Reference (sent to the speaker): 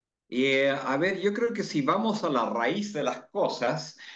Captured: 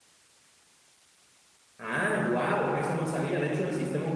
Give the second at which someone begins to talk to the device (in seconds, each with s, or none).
1.8 s